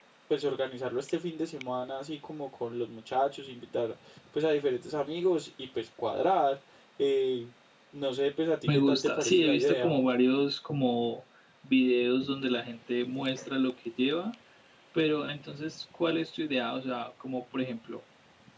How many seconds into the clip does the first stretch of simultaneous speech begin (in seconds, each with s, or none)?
8.7 s